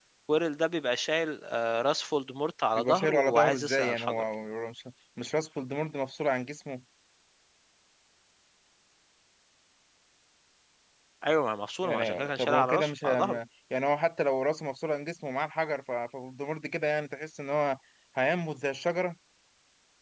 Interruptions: present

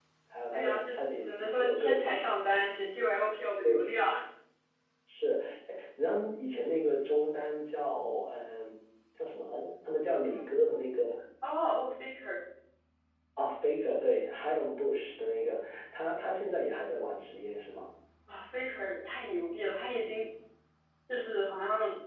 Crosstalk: present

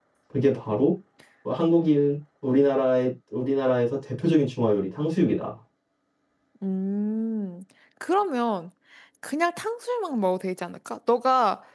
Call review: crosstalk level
none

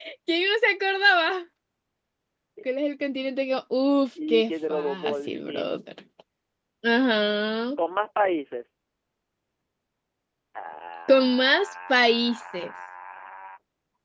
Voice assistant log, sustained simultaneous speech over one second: present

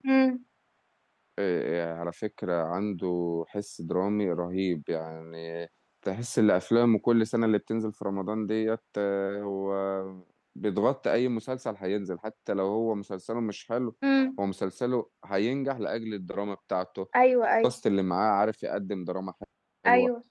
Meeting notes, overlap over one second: none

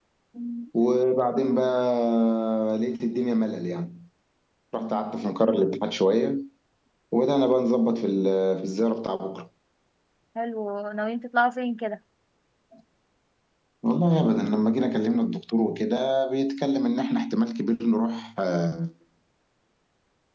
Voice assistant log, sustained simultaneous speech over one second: none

